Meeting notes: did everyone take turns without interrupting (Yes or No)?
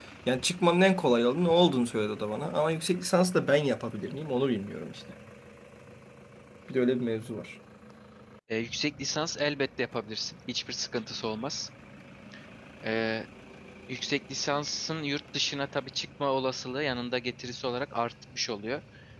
Yes